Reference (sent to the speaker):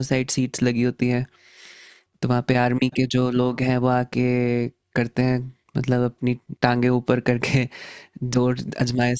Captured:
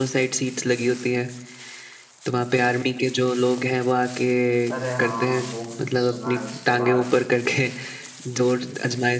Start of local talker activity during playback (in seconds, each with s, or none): 4.7 s